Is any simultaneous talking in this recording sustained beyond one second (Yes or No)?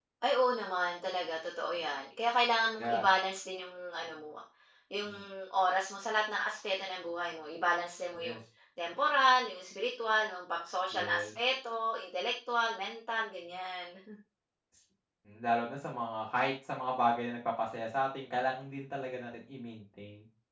No